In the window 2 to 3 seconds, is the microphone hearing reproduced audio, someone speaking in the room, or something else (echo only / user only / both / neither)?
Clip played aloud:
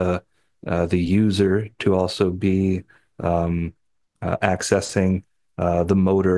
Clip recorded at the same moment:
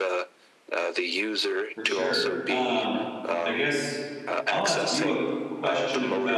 both